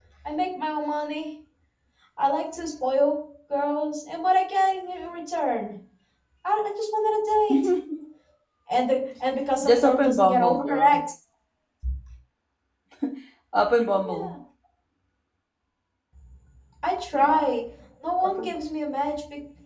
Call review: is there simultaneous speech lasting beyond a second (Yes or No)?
Yes